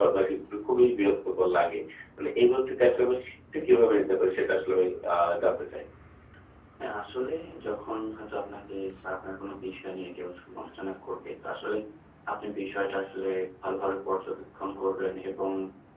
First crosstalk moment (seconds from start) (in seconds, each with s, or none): none